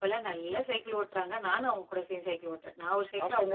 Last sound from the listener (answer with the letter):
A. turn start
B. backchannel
A